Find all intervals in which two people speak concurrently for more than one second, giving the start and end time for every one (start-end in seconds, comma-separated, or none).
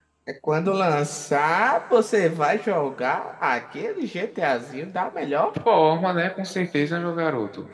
none